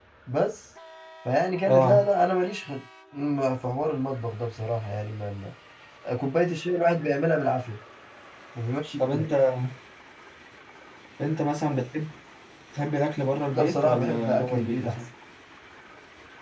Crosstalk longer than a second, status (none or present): present